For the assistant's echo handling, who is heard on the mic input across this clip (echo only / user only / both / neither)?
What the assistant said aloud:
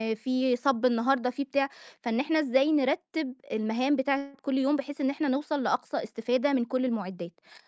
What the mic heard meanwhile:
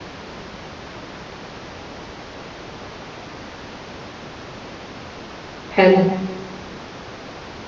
user only